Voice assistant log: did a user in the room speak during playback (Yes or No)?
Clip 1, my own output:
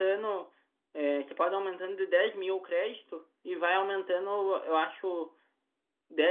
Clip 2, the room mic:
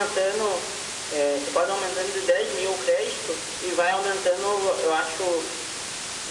No